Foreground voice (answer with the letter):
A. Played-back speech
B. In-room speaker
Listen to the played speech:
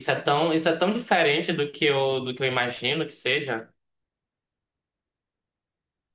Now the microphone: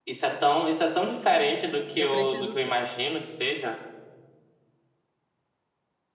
A